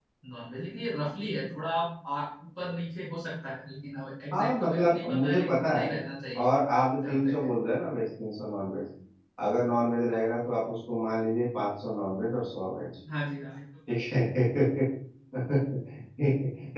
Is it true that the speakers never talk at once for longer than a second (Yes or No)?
No